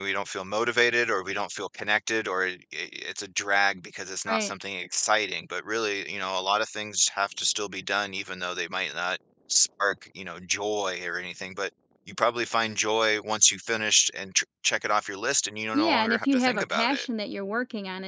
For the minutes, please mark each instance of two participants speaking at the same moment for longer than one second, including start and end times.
15.7-17.0

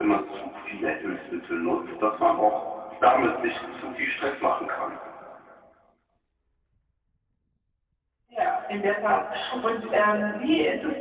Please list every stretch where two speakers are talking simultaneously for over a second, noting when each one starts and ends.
none

